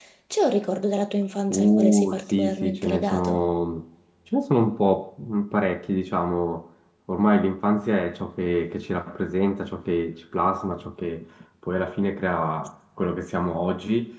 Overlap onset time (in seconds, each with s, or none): 1.5 s